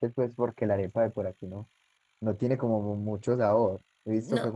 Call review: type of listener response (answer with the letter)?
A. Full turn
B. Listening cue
B